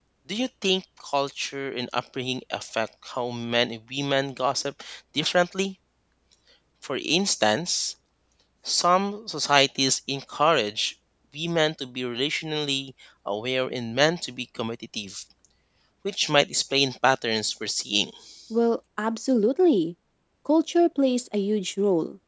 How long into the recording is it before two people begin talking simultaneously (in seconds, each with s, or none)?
none